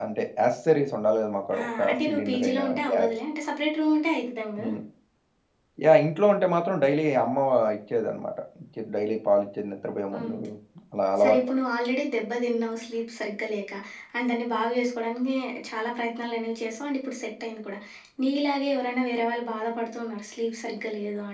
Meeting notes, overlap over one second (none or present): present